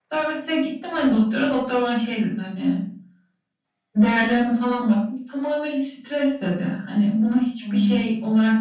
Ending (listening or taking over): listening